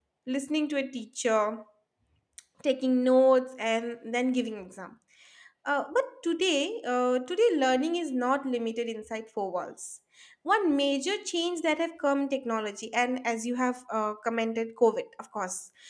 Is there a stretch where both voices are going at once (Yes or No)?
No